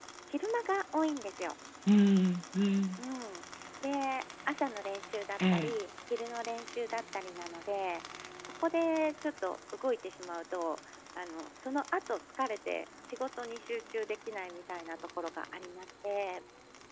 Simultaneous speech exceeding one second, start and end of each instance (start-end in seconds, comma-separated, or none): none